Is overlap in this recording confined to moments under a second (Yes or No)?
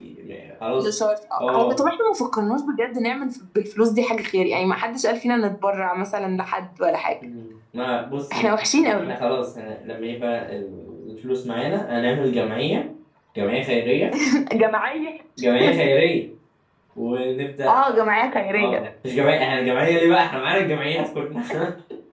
Yes